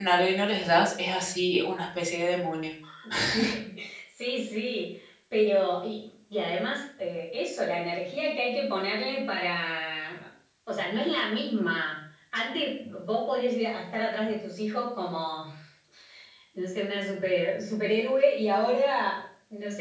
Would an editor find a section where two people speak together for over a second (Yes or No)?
No